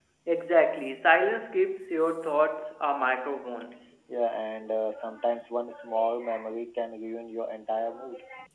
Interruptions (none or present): none